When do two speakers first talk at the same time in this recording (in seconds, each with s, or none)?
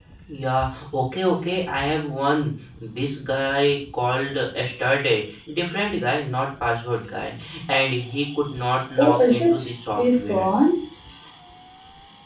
9.0 s